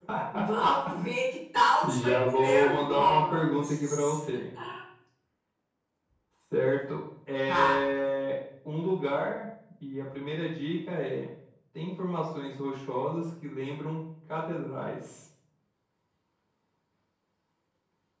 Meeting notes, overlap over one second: present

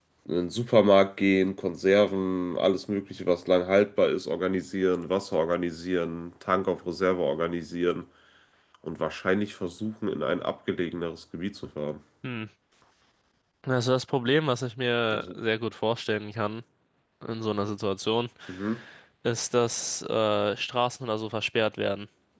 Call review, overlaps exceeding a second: none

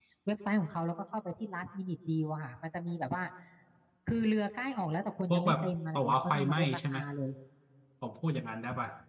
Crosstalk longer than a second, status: present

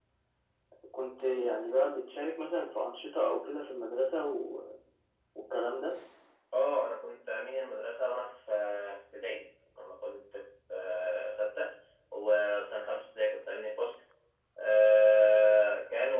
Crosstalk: none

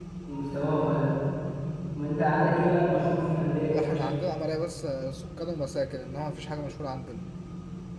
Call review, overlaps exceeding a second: none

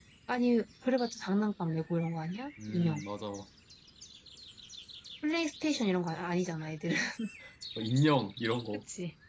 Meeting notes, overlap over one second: none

